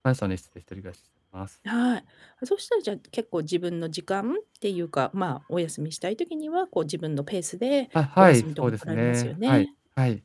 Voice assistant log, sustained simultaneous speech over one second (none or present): present